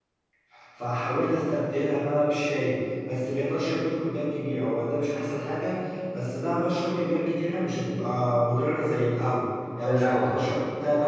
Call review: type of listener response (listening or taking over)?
listening